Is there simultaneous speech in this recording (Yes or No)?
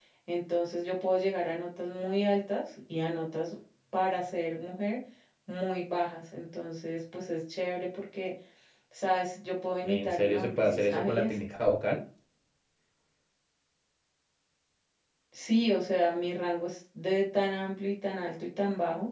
Yes